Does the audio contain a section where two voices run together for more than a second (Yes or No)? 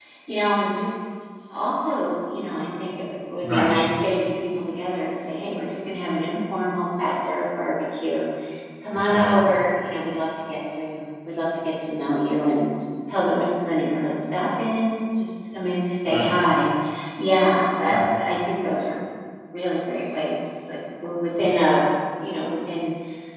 No